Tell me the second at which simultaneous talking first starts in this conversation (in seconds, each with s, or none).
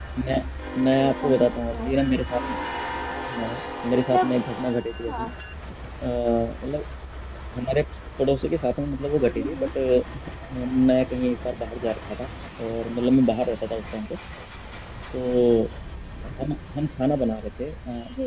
1.0 s